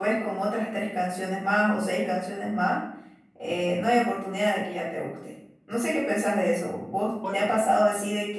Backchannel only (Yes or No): Yes